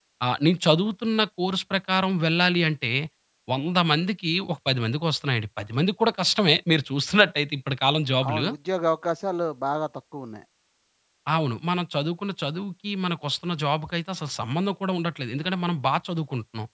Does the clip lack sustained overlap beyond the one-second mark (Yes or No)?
Yes